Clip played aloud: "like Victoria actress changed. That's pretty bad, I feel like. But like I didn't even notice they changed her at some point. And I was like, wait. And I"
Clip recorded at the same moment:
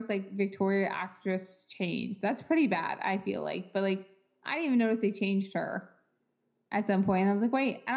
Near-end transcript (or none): none